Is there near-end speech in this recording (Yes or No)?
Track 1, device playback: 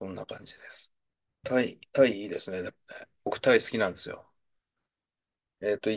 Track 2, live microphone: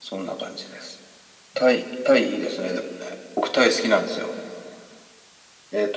No